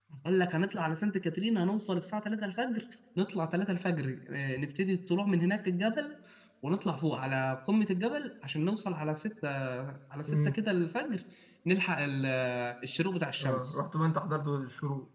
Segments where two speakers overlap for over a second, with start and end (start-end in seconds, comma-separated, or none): none